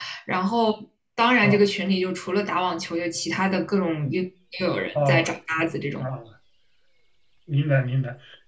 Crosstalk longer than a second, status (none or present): none